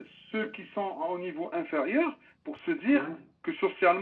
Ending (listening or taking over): listening